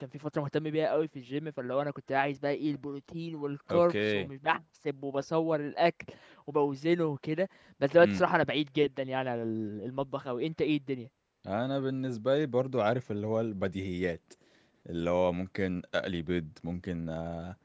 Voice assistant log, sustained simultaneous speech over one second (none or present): none